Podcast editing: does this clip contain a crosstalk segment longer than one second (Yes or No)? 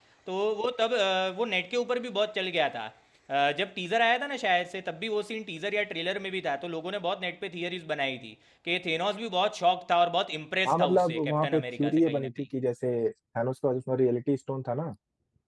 Yes